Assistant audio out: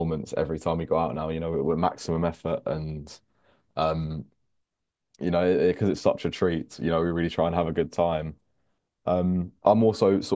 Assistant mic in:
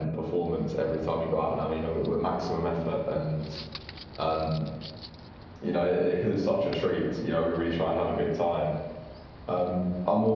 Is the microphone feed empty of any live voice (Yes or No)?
Yes